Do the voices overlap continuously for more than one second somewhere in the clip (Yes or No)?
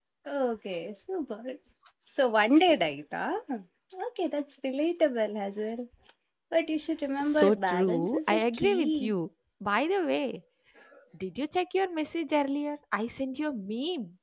Yes